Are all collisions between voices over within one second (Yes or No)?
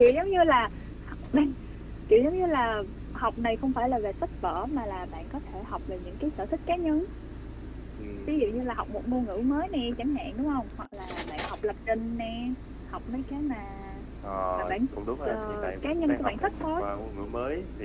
No